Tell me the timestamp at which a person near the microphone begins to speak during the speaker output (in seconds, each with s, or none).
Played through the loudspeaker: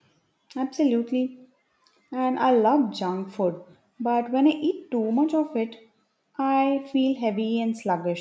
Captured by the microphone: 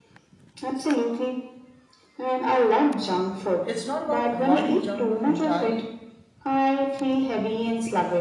3.6 s